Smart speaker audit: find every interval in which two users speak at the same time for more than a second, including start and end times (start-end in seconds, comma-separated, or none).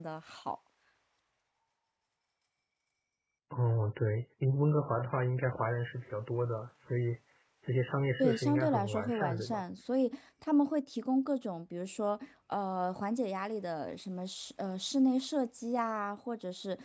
8.2-9.6